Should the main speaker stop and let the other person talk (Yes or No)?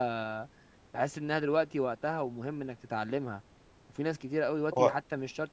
No